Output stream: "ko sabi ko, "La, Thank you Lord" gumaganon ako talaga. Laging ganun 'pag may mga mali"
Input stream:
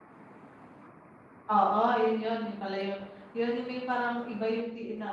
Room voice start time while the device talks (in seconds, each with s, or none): 1.5 s